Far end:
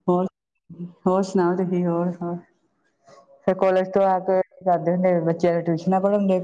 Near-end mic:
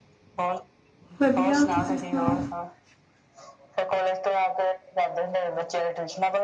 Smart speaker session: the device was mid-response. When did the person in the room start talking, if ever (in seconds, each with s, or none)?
1.2 s